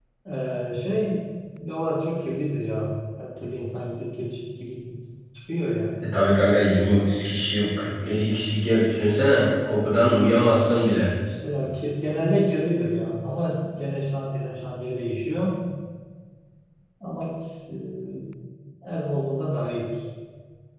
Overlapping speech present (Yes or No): No